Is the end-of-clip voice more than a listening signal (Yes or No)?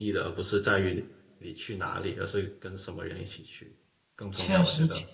Yes